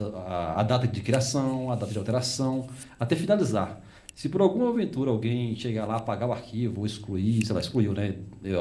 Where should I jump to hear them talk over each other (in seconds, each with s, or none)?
none